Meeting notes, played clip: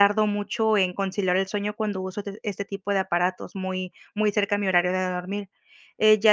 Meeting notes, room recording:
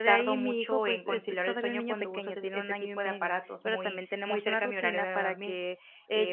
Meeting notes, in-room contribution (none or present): present